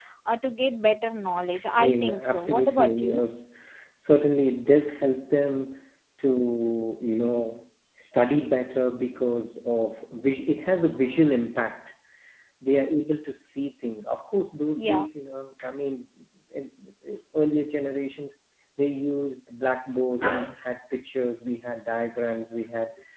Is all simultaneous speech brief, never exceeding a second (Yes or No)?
No